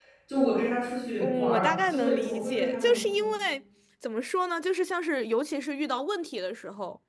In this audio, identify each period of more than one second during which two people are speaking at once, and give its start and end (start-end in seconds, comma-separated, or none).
1.2-3.3